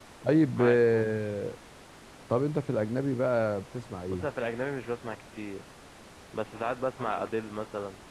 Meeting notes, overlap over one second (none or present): none